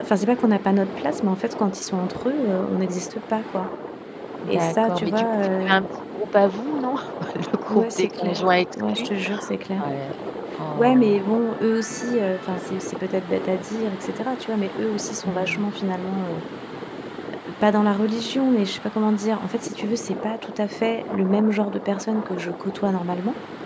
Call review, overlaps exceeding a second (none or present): present